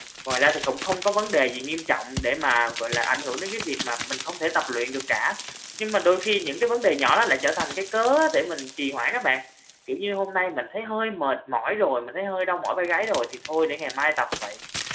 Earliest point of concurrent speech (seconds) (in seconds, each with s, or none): none